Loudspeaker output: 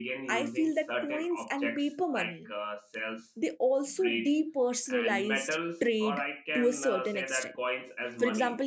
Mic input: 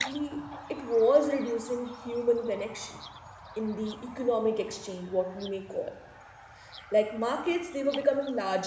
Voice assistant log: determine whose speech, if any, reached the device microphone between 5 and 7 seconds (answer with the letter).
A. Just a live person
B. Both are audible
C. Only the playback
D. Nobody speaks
A